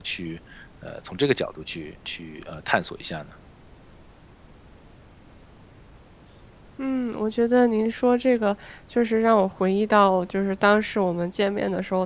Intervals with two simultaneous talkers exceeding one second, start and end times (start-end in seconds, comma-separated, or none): none